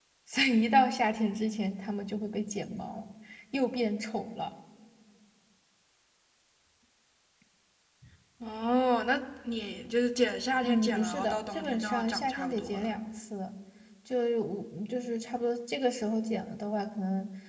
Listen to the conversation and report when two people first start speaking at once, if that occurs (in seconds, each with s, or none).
10.6 s